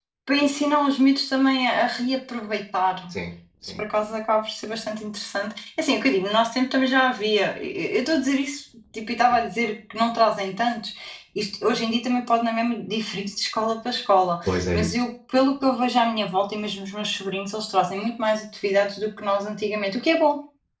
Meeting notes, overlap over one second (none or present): none